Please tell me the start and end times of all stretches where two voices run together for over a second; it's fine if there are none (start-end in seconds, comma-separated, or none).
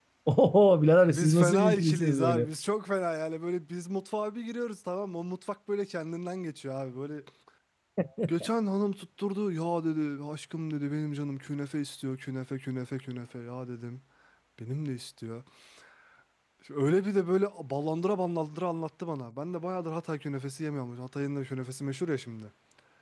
1.1-2.5